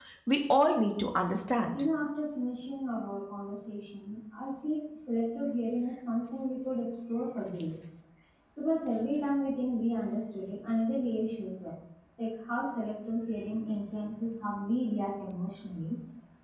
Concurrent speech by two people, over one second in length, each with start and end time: none

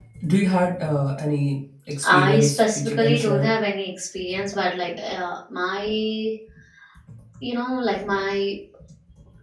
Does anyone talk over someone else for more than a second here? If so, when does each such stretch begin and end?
2.0-3.6

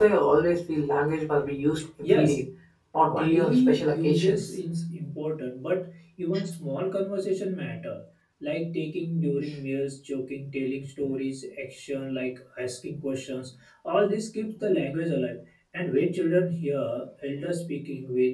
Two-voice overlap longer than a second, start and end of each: 3.1-4.5

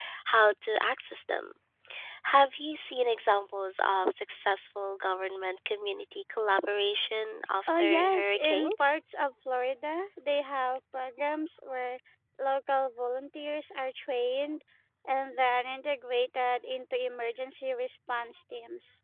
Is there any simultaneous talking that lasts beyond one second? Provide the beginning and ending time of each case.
7.7-9.0

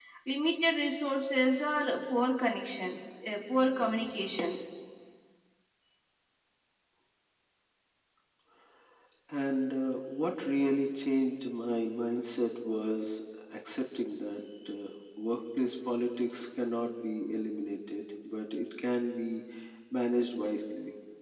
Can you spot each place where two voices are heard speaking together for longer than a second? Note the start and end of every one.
none

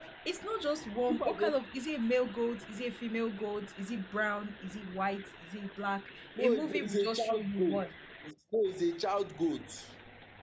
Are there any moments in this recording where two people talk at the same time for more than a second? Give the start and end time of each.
6.4-7.9

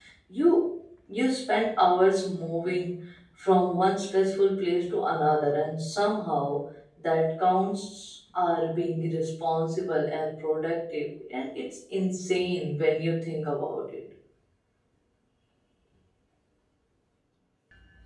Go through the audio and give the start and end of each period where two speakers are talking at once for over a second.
none

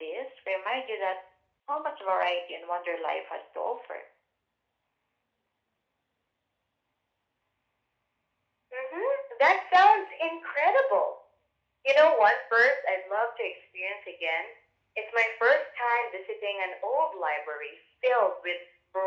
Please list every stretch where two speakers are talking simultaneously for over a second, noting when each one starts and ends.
none

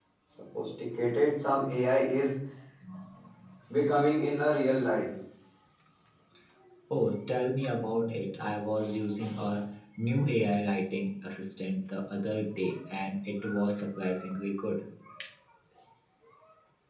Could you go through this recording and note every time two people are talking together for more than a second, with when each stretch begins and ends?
none

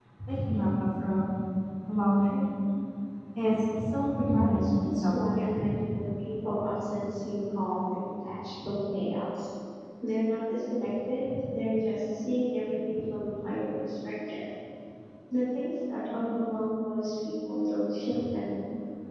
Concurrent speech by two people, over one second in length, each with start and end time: 4.2-5.6

